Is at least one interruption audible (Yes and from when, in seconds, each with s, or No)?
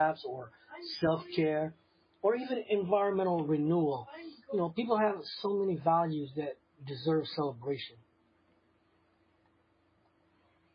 No